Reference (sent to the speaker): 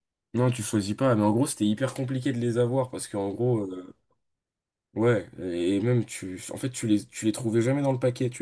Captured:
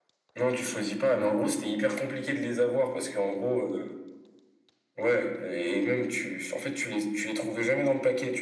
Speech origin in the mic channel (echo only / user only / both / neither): echo only